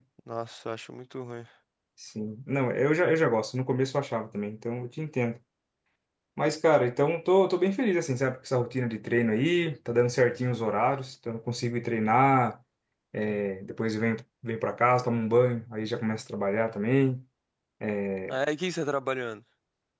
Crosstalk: none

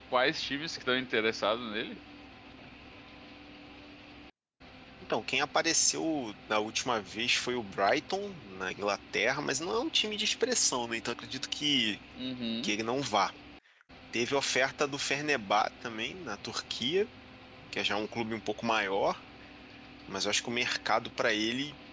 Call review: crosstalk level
none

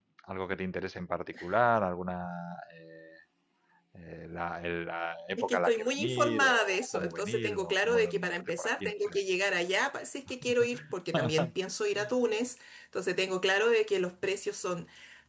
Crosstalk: present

